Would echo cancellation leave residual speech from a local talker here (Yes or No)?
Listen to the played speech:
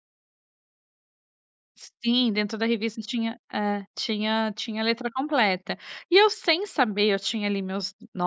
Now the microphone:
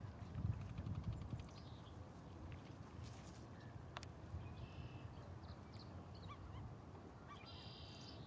No